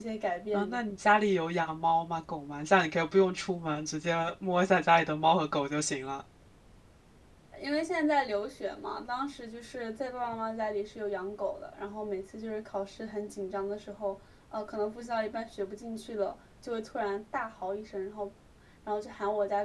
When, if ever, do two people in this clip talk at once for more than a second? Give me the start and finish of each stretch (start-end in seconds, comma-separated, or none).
none